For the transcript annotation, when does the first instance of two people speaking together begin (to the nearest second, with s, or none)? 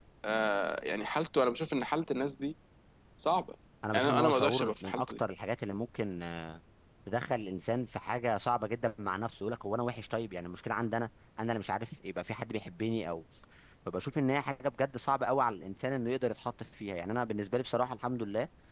4 s